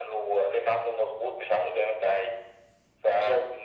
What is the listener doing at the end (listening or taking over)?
listening